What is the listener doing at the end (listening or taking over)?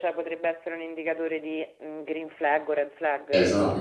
taking over